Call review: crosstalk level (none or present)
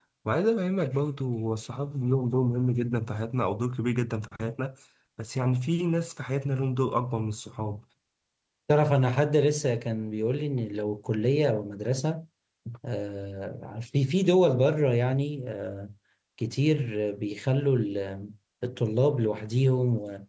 none